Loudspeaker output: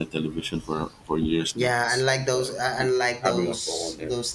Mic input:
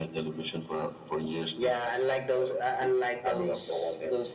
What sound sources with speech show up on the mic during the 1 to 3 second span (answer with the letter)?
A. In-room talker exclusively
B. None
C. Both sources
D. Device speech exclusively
D